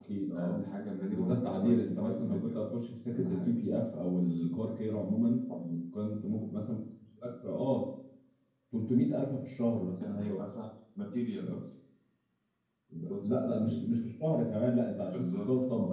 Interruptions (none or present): present